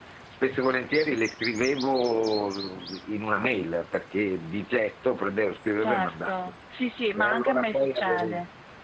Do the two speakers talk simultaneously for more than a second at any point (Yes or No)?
Yes